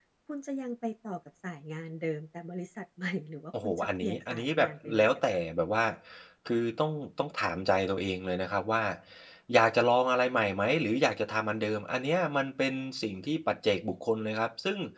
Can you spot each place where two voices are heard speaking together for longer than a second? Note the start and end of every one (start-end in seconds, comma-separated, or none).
3.6-5.4